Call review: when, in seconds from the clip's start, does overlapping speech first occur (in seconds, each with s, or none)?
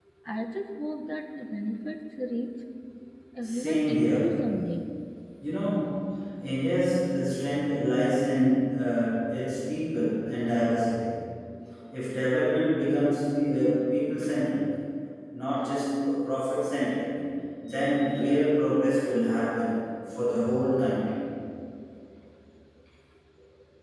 3.4 s